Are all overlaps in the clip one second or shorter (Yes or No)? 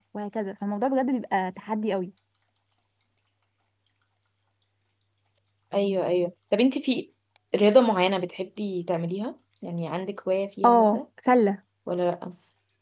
Yes